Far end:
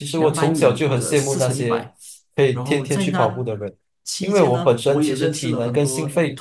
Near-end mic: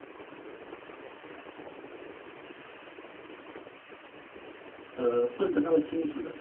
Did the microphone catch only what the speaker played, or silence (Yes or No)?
No